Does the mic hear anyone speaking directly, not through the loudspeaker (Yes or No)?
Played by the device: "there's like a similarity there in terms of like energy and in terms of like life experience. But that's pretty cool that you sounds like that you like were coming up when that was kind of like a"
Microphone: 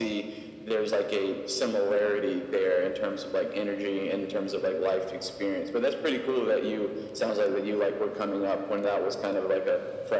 No